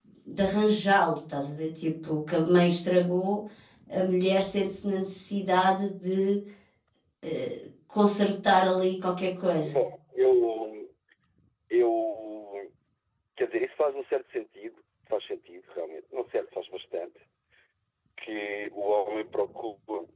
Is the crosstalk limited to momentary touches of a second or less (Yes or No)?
Yes